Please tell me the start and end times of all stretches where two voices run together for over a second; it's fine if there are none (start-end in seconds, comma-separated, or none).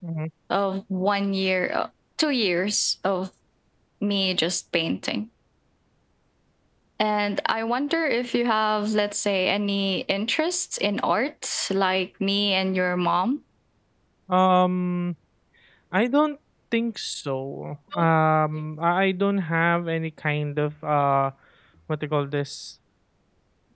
none